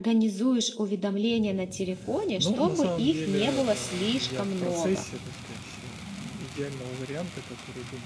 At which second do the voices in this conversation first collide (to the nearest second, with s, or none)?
2 s